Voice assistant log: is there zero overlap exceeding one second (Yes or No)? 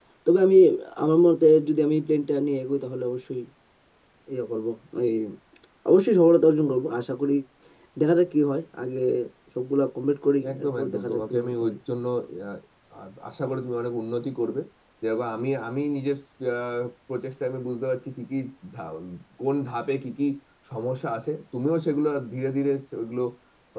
No